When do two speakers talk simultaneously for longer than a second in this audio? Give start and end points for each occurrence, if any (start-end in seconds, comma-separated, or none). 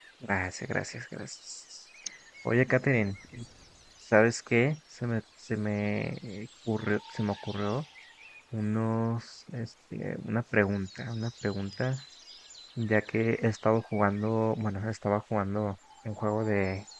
none